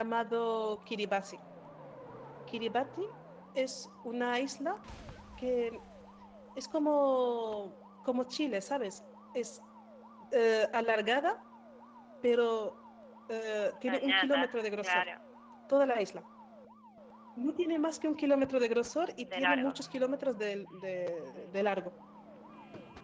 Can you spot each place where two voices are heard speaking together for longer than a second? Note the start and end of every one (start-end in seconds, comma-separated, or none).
13.9-15.1